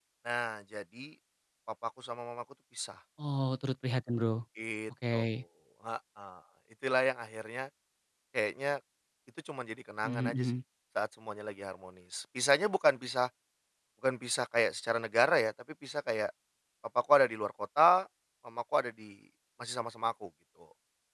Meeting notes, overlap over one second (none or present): none